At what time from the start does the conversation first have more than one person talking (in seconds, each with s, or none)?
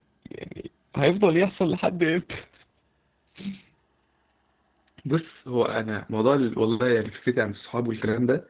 none